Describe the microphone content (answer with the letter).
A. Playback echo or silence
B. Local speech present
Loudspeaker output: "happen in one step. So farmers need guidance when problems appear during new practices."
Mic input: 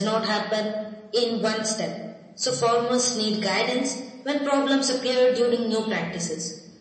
A